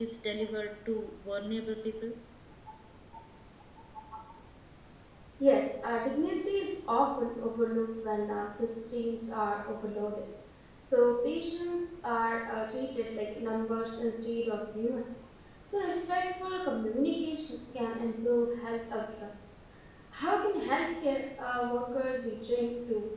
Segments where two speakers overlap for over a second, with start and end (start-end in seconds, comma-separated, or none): none